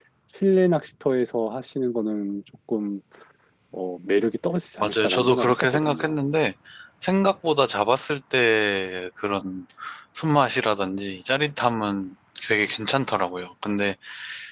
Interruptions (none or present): present